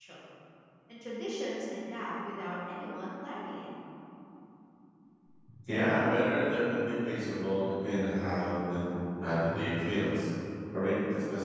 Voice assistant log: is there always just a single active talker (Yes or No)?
Yes